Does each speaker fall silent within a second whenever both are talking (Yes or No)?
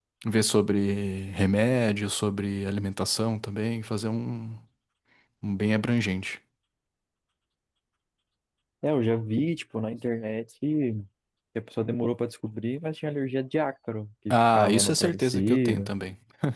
No